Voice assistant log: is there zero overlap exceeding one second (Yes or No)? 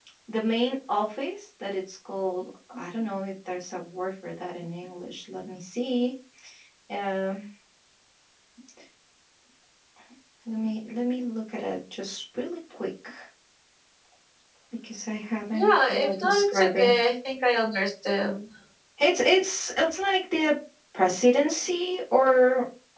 No